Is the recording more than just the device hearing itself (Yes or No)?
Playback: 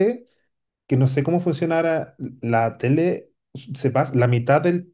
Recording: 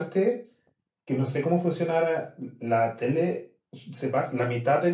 No